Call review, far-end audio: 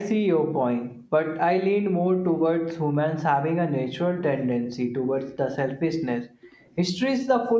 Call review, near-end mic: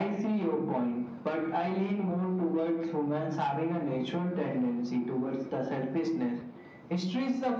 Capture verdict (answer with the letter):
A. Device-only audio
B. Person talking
A